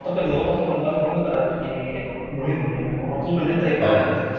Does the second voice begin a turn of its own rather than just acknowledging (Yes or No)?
No